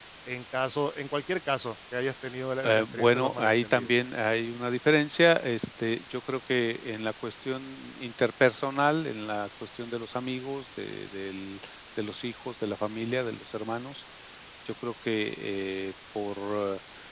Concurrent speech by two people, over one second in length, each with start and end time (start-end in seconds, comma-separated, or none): 2.6-3.9